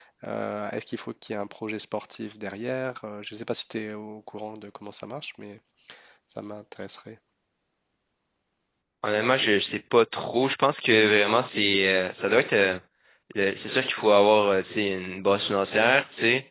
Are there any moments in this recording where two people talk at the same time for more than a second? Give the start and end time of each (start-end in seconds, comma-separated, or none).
none